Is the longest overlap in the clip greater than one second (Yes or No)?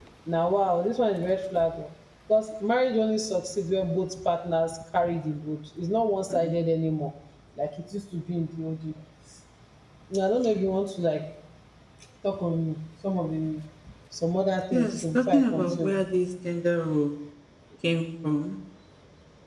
Yes